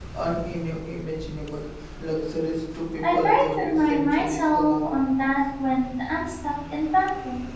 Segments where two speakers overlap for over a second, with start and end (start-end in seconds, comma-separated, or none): 3.0-4.8